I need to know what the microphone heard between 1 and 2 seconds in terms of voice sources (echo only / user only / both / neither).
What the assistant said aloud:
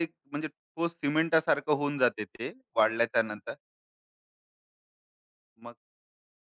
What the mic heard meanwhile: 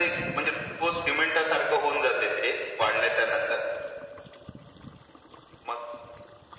echo only